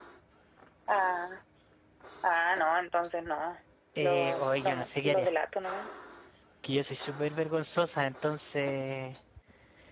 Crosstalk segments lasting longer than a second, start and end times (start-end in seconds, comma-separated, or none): 4.0-5.3